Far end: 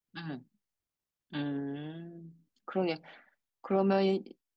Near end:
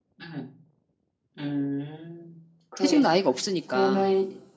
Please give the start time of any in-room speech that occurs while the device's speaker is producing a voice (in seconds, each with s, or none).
2.8 s